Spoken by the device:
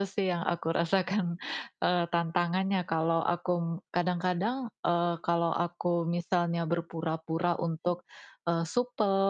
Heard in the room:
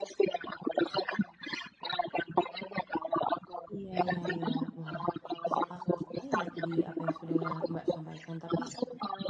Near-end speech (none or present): present